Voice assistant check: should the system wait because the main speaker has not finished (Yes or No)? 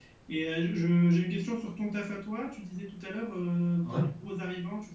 Yes